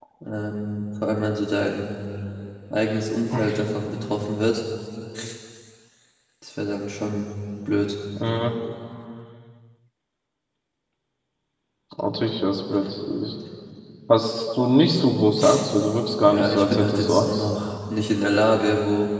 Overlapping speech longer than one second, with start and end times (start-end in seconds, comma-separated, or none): 16.2-17.4